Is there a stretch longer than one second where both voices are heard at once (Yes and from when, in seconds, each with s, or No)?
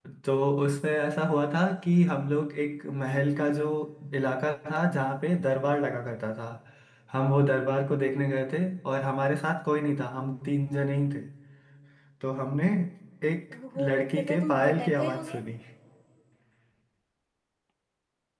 Yes, from 13.8 s